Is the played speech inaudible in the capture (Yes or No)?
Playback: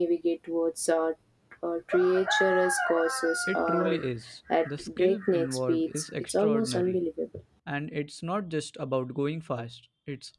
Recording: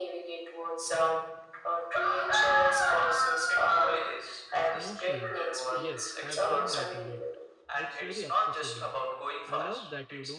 No